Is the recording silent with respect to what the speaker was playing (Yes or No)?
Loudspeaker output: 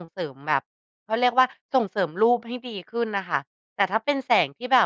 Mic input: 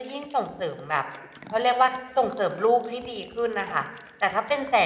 No